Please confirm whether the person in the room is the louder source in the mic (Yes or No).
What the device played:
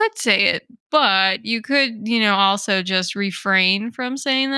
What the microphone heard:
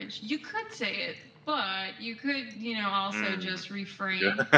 Yes